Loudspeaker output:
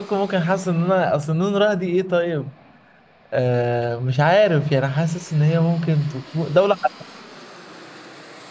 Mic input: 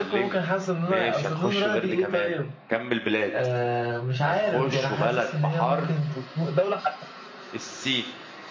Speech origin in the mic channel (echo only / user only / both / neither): both